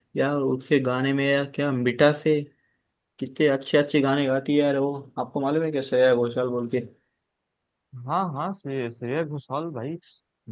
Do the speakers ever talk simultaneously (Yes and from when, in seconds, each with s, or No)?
No